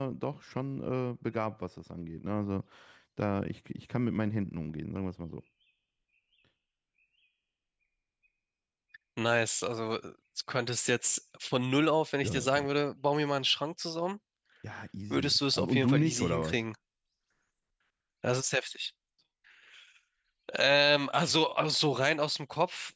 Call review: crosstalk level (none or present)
present